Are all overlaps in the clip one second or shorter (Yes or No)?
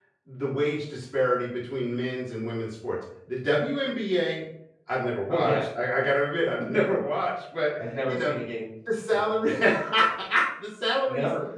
Yes